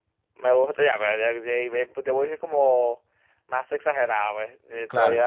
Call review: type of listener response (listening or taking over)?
listening